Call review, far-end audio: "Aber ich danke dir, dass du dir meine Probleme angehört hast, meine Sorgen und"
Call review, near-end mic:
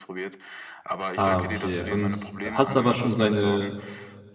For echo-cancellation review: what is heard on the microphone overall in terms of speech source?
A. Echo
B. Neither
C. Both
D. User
C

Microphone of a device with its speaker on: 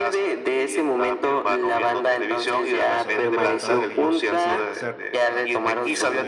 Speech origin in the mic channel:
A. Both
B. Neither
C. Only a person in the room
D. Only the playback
A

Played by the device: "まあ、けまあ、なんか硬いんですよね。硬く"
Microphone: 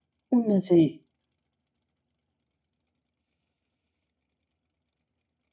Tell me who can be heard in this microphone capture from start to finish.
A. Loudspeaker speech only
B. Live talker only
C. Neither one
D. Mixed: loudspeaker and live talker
B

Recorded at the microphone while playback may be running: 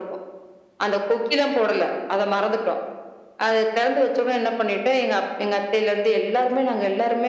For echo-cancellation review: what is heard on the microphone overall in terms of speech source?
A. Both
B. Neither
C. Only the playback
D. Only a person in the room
C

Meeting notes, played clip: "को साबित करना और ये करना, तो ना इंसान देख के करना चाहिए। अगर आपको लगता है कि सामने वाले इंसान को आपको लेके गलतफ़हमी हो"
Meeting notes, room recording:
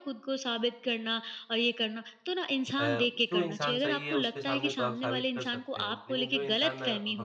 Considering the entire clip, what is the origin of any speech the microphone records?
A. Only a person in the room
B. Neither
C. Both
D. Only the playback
C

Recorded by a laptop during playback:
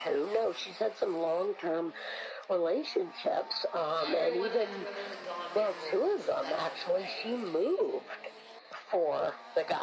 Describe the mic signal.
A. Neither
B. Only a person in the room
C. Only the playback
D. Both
D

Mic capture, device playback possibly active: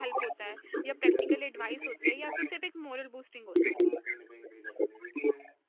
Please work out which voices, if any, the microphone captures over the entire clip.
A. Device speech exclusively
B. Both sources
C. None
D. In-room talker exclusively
B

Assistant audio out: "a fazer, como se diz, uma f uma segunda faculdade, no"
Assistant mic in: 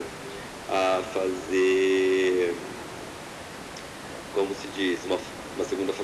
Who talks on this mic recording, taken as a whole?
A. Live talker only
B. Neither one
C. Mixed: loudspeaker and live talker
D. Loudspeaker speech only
D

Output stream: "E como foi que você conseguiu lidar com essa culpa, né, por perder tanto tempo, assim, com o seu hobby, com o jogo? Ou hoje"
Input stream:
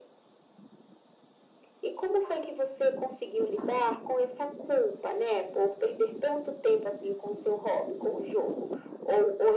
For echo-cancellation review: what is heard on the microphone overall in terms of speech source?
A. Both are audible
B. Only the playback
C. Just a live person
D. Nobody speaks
B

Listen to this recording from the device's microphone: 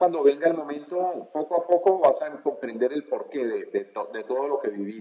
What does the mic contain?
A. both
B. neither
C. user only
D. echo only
D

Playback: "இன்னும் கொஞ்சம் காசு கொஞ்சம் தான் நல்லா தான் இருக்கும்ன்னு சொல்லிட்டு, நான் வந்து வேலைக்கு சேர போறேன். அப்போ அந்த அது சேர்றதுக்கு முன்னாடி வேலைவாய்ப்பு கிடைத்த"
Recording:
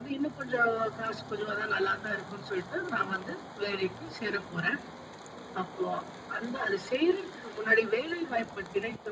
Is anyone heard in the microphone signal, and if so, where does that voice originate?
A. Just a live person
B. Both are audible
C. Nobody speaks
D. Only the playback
D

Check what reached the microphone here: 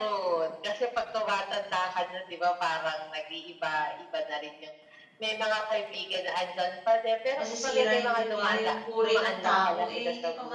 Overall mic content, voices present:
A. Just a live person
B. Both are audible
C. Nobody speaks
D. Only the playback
B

